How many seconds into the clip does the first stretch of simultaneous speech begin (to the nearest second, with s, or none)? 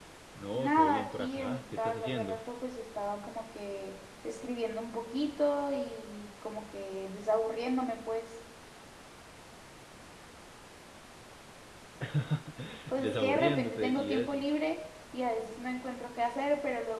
1 s